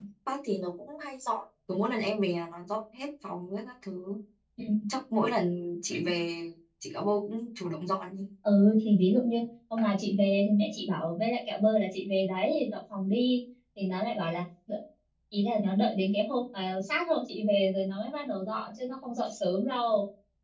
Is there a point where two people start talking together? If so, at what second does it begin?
none

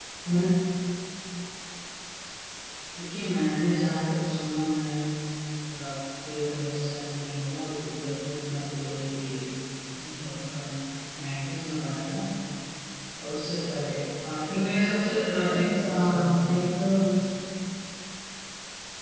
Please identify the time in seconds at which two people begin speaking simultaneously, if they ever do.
15 s

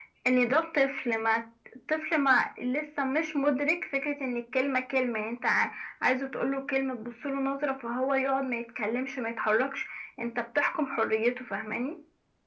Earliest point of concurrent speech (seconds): none

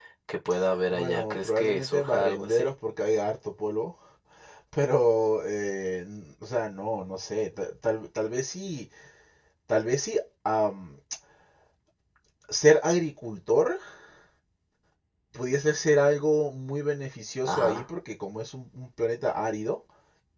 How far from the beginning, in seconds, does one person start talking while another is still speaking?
1 s

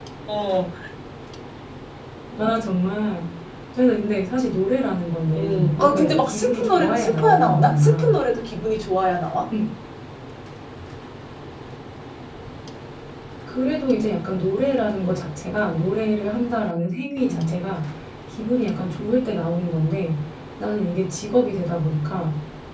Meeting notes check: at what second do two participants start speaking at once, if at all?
5 s

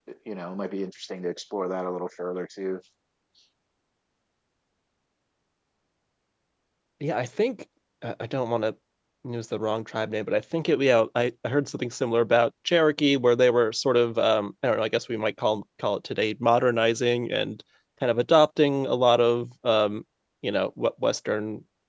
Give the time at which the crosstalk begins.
none

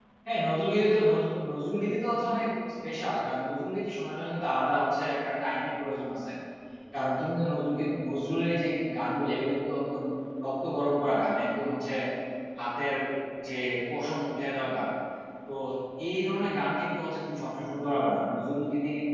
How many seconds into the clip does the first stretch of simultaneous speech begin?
none

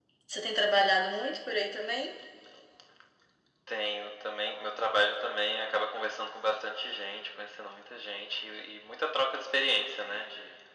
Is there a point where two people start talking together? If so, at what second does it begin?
none

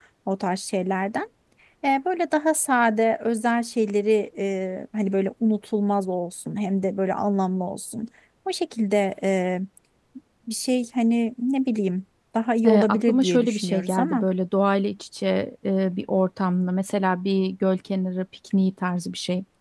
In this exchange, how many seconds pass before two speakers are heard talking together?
13 s

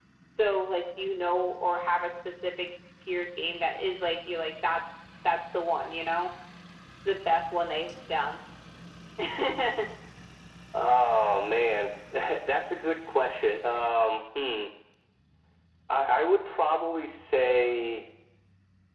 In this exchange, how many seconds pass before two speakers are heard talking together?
none

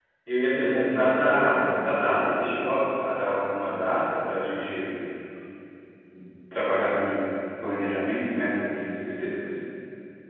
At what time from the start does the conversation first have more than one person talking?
1 s

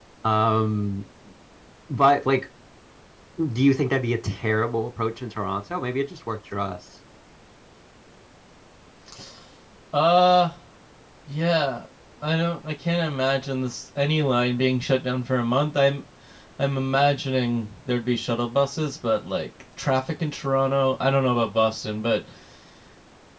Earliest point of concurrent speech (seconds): none

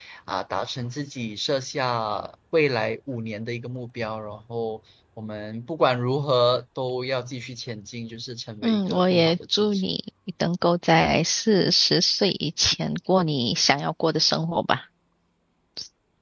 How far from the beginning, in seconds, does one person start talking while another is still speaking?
9 s

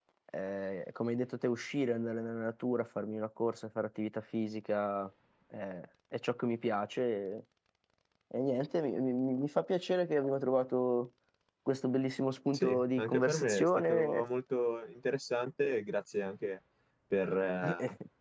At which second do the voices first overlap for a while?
13 s

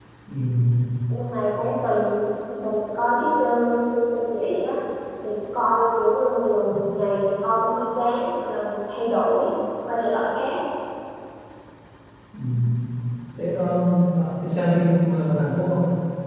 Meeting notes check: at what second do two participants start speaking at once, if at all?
none

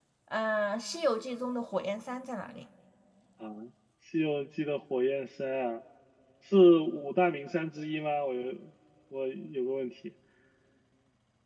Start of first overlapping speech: none

